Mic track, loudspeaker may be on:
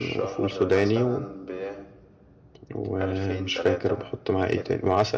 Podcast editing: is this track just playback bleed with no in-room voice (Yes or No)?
No